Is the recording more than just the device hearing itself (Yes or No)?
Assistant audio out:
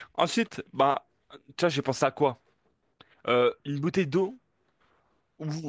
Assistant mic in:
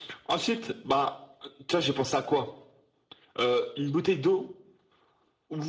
No